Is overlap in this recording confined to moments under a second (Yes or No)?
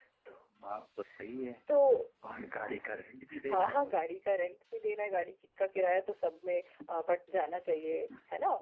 Yes